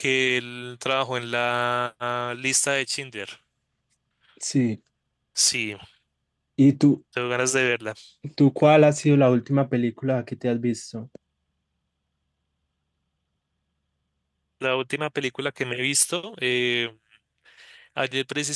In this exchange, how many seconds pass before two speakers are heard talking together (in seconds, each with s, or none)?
none